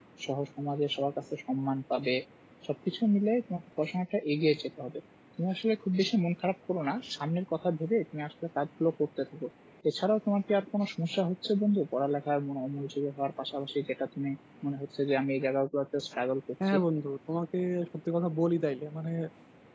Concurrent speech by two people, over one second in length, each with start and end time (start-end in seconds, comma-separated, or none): none